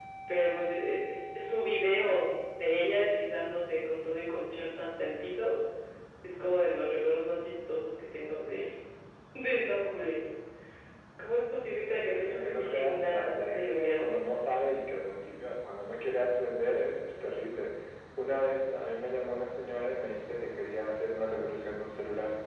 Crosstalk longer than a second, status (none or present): present